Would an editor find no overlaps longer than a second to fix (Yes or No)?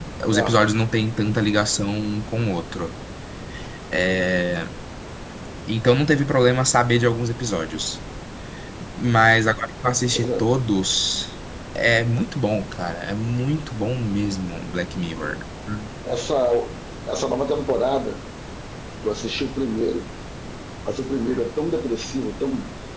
Yes